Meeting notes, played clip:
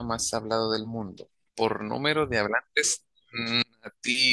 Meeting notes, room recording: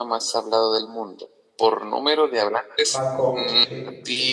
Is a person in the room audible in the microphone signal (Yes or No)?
Yes